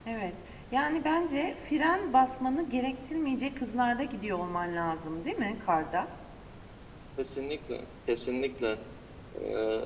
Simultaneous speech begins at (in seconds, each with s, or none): none